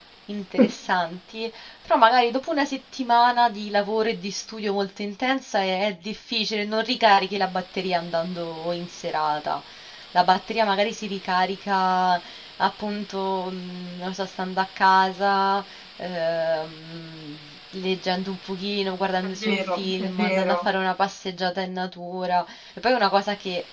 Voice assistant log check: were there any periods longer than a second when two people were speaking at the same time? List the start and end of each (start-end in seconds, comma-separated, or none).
19.2-20.6